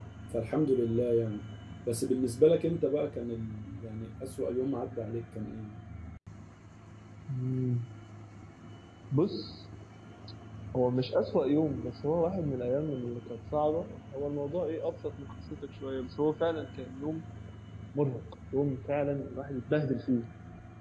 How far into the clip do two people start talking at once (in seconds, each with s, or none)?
none